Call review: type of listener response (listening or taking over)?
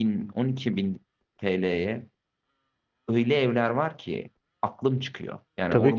listening